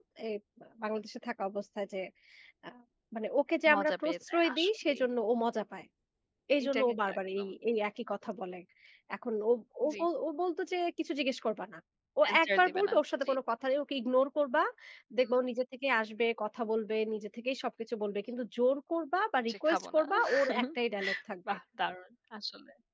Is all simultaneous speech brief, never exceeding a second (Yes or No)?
No